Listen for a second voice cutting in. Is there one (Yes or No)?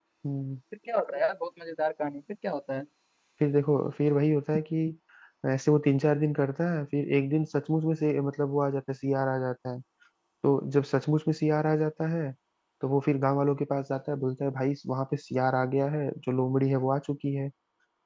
No